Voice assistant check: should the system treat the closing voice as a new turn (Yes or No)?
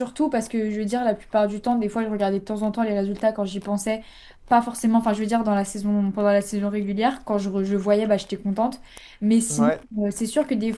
No